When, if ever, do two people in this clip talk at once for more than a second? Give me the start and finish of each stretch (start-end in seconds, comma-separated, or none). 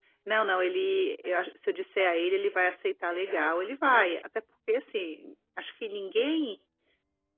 none